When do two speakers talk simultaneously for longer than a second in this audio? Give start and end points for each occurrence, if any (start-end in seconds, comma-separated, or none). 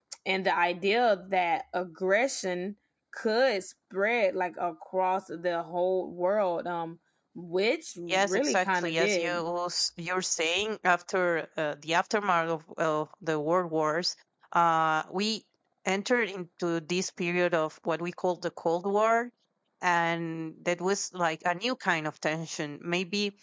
8.1-9.4